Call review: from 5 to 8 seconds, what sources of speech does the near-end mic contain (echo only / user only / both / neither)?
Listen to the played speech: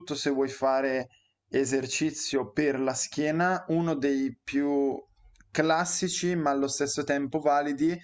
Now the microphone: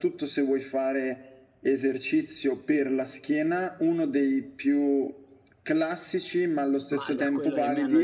both